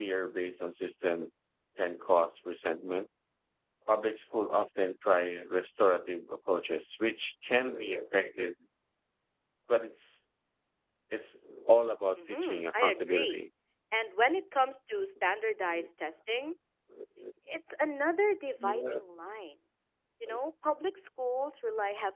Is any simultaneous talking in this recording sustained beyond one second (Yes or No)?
Yes